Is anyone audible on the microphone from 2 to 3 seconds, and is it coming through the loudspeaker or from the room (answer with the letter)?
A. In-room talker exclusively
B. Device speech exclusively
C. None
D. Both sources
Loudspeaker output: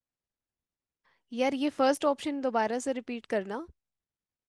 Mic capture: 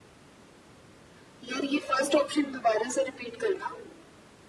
B